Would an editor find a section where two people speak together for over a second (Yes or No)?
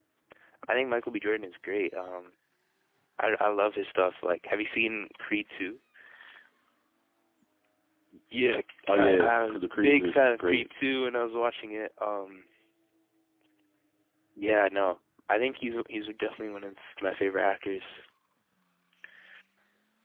Yes